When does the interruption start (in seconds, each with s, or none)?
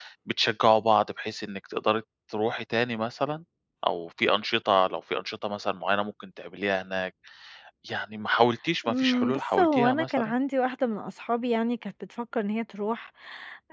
8.8 s